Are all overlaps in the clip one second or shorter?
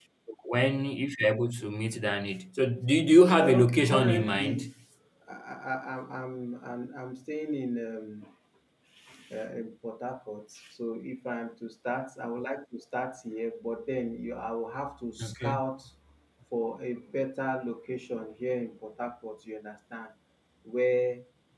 No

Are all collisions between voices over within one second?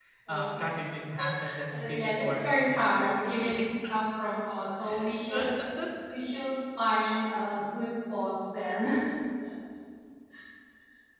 No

